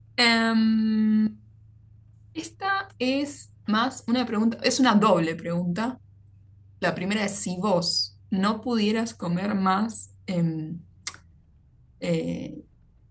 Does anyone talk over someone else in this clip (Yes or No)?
No